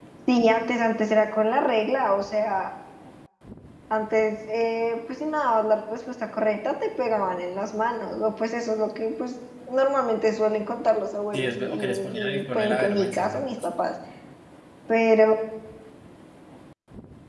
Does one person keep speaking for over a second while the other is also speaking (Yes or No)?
Yes